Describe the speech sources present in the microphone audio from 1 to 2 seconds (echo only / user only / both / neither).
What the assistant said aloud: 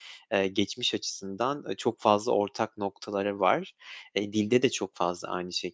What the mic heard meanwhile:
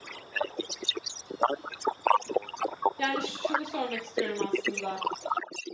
echo only